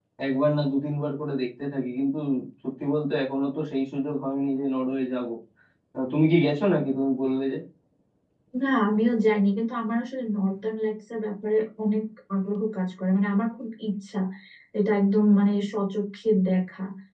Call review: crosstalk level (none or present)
none